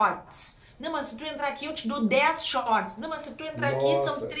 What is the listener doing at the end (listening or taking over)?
listening